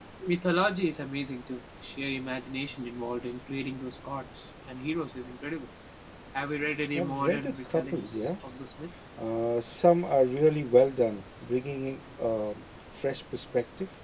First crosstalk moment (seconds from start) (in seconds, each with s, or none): 7.0 s